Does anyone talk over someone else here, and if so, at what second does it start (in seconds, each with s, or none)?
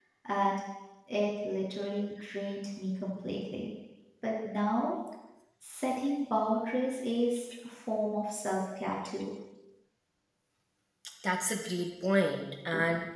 none